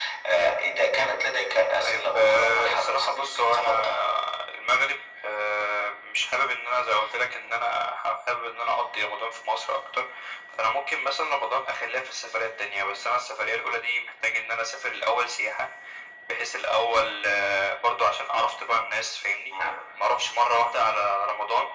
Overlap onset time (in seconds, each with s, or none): 1.8 s